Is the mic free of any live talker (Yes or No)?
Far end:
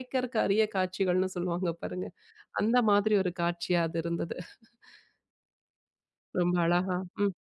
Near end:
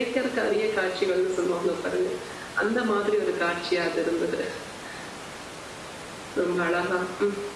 Yes